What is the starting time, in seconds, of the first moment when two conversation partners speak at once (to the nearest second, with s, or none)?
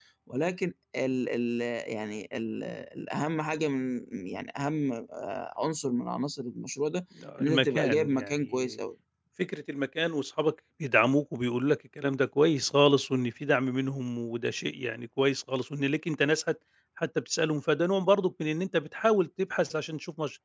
7 s